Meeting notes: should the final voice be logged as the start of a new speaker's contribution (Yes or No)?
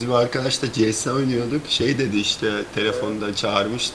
No